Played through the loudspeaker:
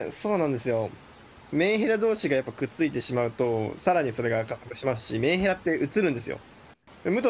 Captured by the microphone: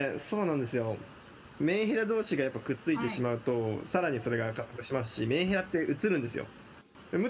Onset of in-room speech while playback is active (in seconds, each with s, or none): 2.9 s